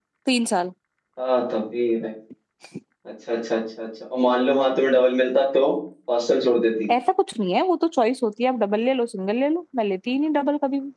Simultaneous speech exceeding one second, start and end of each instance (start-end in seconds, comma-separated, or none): none